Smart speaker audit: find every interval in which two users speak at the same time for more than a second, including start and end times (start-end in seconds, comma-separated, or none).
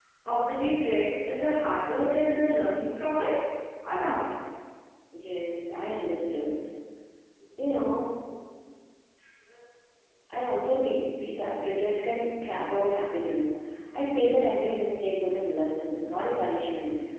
none